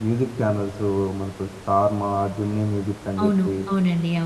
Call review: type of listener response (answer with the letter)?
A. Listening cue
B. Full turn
B